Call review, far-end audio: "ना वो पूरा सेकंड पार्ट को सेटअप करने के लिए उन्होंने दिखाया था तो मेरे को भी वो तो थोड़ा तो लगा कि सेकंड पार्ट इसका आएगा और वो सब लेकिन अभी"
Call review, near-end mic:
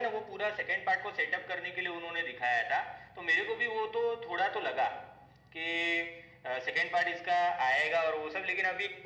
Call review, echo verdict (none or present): present